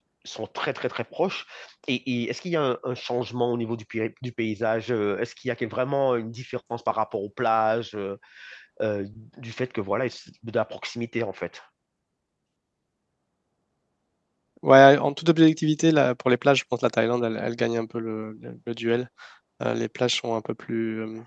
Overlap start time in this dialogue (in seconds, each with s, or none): none